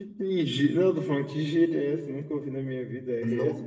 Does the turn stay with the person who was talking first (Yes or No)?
No